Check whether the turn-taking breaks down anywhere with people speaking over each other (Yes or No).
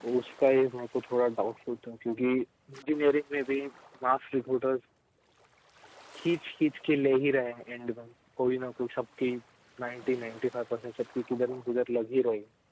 No